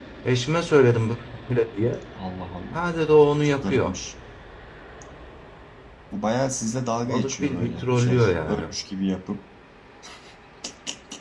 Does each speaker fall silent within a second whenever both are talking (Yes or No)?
No